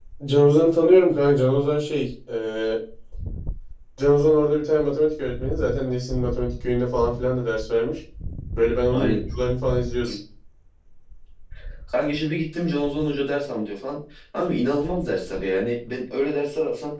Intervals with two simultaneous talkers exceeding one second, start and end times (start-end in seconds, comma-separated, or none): none